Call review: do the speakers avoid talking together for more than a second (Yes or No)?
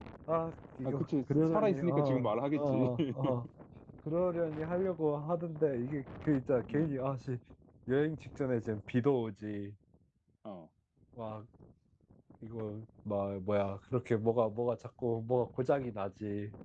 No